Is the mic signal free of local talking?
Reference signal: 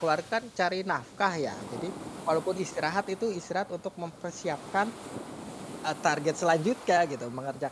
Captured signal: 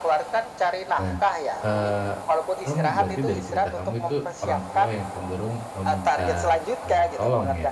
No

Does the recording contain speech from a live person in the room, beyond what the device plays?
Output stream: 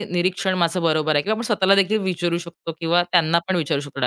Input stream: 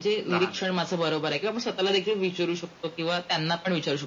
Yes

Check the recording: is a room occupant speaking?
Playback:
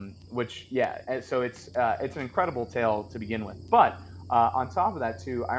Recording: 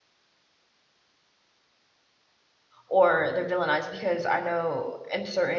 Yes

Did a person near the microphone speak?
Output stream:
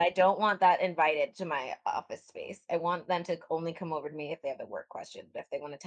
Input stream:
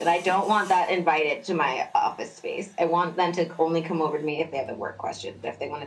No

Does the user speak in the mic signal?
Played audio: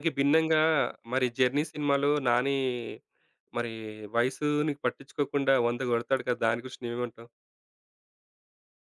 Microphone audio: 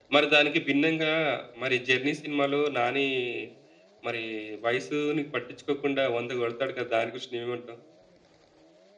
No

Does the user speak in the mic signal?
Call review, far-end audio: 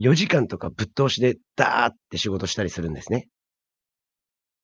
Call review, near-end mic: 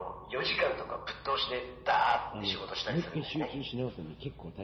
Yes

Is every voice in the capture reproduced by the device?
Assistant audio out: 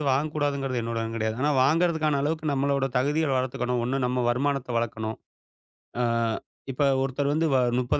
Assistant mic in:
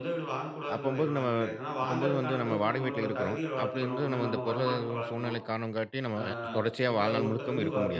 No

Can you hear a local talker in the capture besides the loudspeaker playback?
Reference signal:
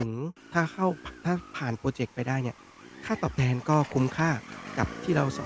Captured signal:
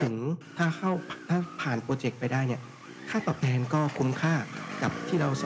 No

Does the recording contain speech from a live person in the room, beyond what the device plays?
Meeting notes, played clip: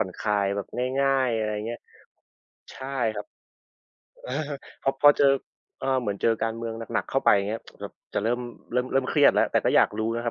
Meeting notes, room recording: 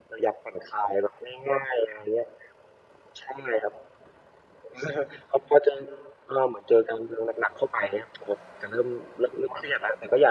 No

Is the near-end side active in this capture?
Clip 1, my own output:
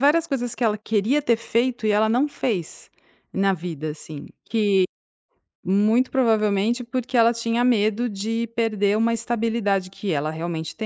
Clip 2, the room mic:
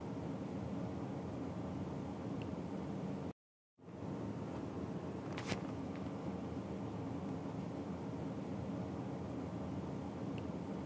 No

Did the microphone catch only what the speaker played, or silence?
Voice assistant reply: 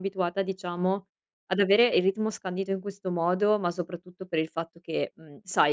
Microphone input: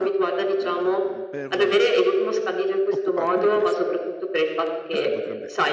No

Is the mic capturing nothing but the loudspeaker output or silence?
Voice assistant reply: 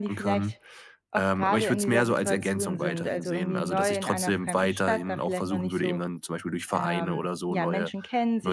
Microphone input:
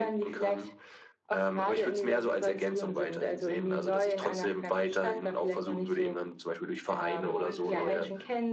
No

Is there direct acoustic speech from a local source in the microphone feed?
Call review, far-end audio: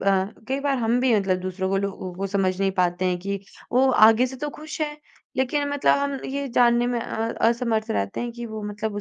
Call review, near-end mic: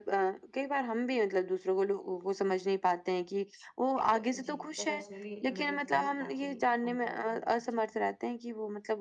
Yes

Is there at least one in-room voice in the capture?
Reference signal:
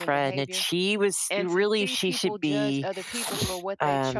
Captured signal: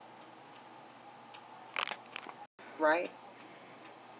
Yes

